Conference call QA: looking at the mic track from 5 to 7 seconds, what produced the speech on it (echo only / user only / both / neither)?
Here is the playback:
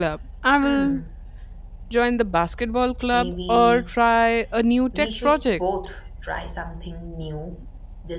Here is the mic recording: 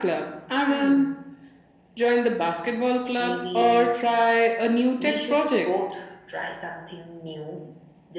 echo only